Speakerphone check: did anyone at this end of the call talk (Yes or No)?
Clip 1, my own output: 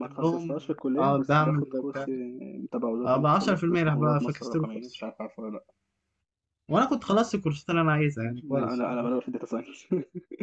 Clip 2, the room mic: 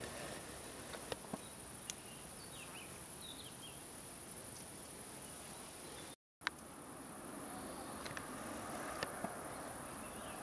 No